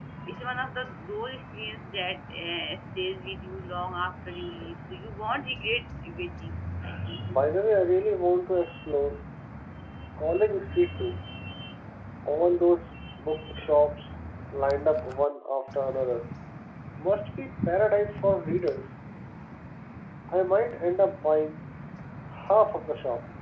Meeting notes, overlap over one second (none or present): none